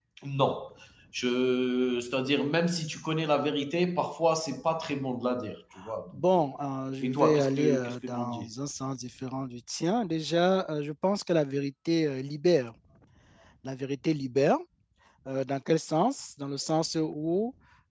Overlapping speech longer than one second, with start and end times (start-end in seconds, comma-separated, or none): 7.0-8.5